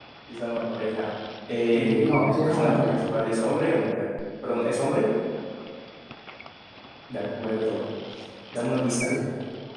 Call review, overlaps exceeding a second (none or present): present